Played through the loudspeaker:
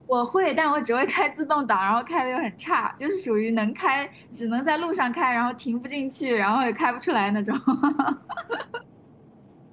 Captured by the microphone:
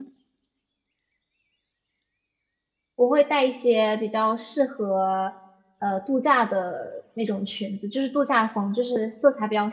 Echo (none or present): none